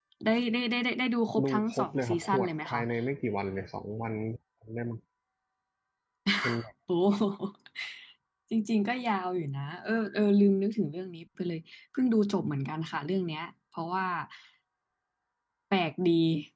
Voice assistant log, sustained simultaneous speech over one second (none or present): present